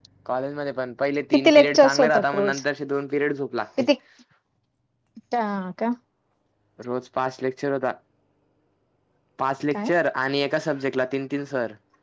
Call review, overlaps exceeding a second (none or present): present